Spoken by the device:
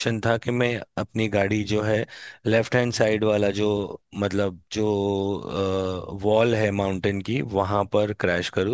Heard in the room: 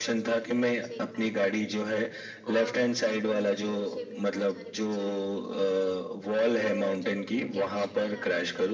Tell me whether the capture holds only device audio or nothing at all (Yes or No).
No